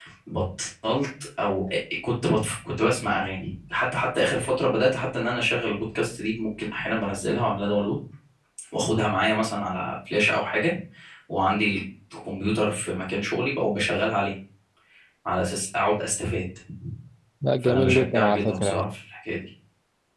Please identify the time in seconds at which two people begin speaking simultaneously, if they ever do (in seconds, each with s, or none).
17.6 s